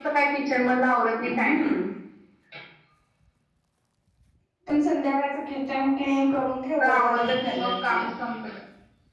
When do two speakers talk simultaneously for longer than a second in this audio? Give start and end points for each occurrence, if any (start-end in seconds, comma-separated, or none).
6.8-8.1